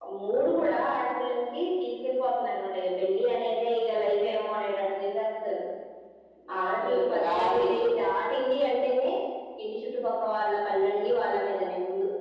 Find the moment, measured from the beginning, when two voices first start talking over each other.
6.6 s

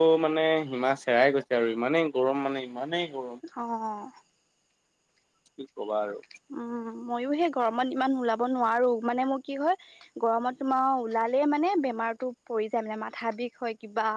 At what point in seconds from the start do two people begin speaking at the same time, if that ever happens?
none

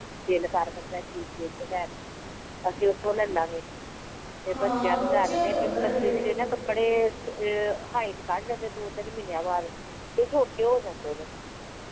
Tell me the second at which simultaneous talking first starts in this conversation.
4.5 s

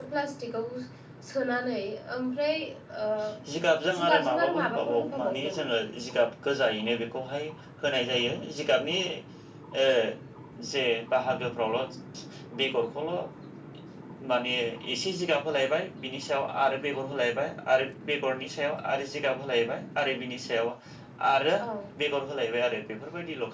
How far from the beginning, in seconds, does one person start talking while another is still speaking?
4.0 s

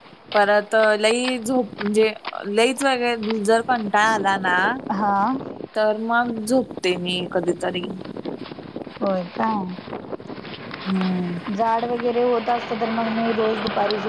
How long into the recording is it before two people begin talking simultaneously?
none

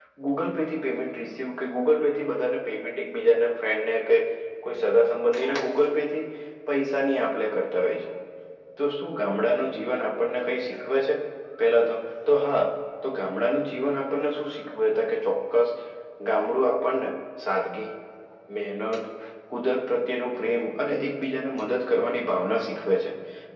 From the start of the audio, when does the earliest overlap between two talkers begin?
none

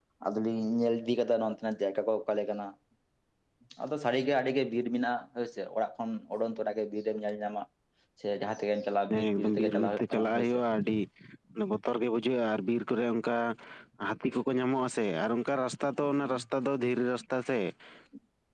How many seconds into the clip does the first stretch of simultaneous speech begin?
9.1 s

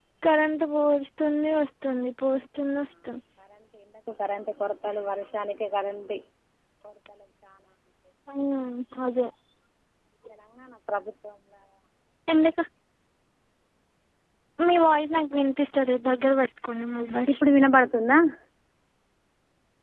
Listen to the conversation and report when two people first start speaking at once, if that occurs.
none

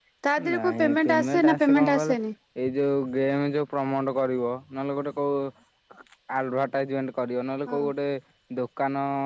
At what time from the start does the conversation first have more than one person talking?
0.5 s

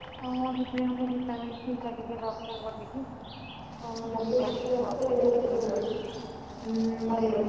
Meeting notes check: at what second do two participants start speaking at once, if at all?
4.1 s

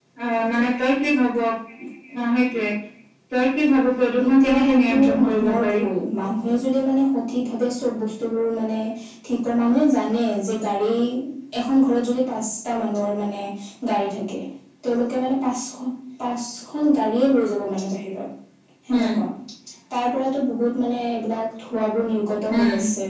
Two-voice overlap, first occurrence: 4.3 s

